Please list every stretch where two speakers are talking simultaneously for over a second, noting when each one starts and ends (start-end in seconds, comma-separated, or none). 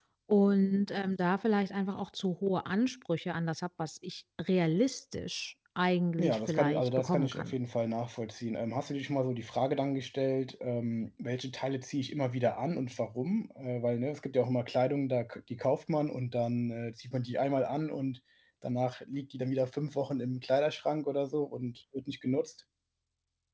6.2-7.6